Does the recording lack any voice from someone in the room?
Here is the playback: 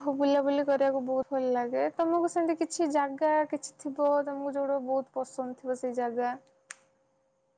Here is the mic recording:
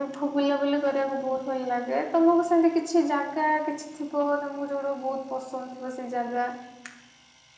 Yes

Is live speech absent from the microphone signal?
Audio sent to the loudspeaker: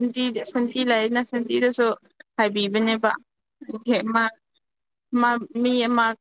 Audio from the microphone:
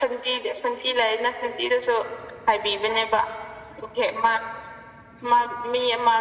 Yes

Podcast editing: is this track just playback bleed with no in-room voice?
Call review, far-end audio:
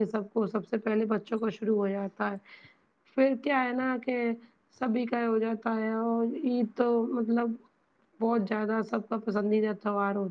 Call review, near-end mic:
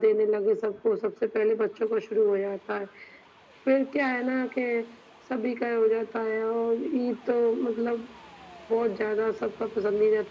Yes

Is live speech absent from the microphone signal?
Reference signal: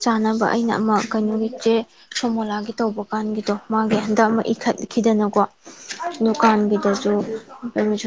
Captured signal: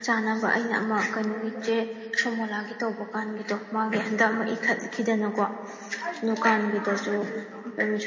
Yes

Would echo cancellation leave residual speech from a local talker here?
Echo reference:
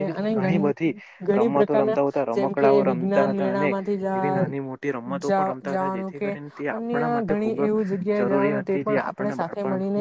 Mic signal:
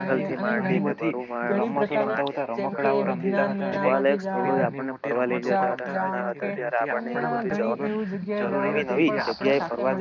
Yes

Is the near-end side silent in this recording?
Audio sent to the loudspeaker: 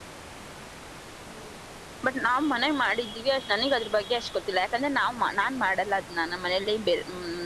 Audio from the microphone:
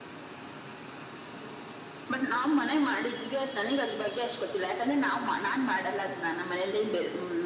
Yes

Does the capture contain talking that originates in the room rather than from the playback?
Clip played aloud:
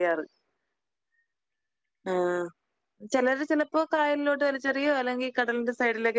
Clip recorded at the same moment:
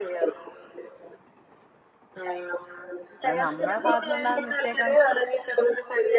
Yes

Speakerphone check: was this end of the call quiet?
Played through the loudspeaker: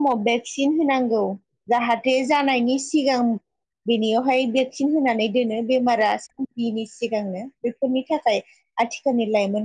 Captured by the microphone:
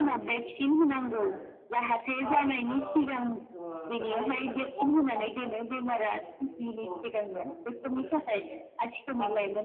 No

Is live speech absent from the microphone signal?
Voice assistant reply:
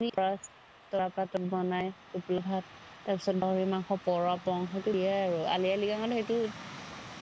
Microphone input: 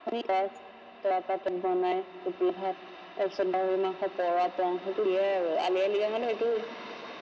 Yes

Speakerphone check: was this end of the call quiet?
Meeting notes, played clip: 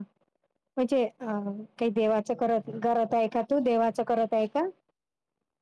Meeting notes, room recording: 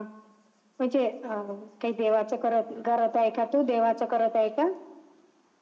Yes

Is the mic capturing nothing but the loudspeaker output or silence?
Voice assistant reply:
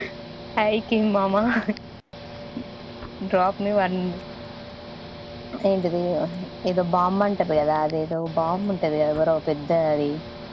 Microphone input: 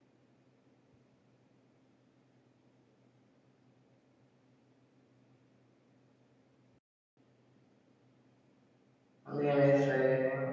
No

